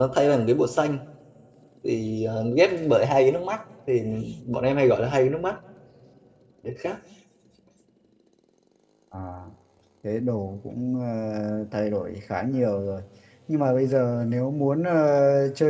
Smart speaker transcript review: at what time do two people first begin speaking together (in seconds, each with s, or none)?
none